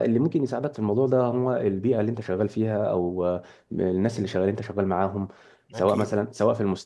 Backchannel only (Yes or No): Yes